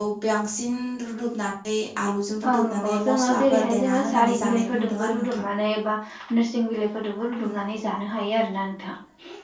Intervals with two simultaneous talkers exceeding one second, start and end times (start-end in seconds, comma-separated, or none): 2.5-5.5